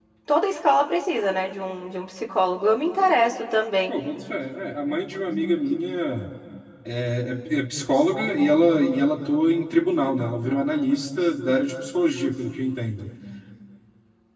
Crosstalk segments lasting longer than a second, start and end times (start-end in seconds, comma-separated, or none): none